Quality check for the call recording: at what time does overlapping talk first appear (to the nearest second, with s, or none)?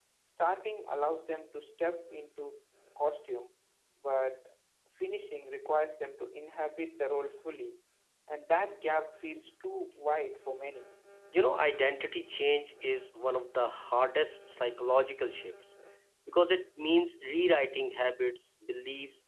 none